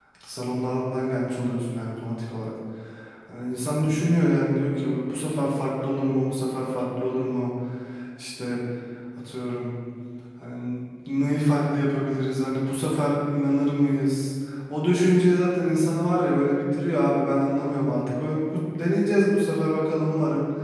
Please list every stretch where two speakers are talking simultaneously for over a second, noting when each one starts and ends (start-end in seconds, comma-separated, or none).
none